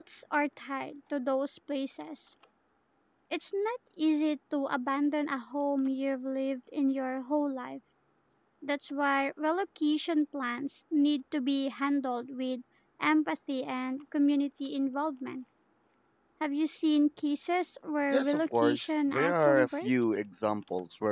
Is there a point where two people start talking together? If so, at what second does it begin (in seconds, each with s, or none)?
18.1 s